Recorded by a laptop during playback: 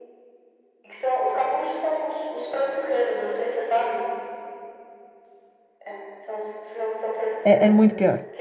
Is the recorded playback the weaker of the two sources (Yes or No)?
Yes